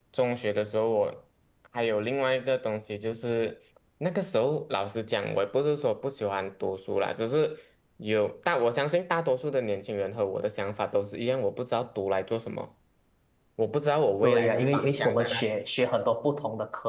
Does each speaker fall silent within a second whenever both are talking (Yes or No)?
No